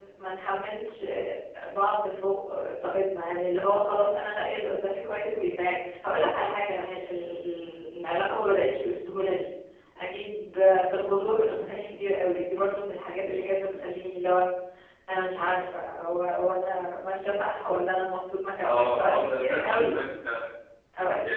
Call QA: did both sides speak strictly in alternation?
No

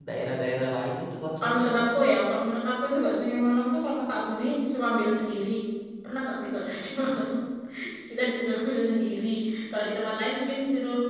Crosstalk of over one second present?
No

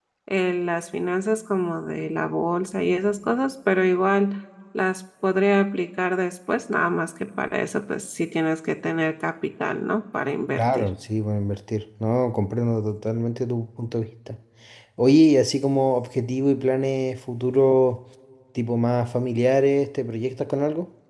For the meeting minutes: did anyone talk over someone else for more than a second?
No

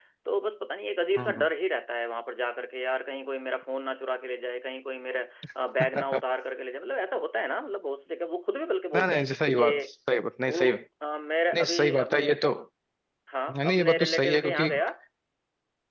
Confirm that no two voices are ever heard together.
No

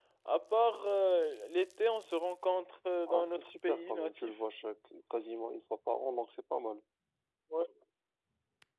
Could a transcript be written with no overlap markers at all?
No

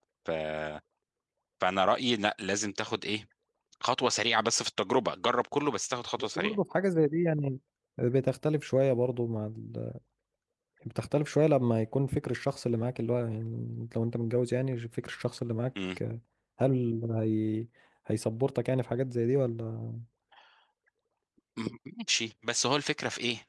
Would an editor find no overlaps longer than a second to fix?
Yes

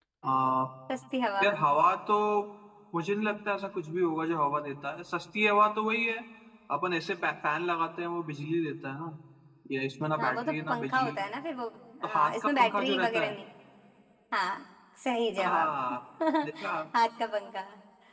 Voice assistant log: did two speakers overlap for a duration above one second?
Yes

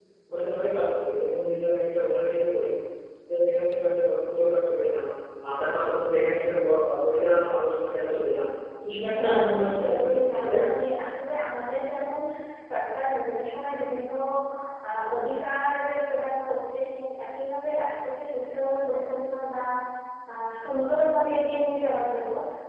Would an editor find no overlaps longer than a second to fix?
No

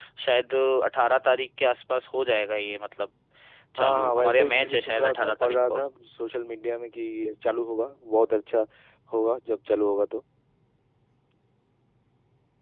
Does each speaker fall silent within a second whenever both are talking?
No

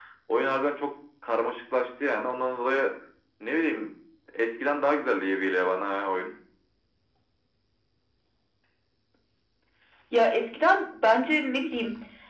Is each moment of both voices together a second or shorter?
Yes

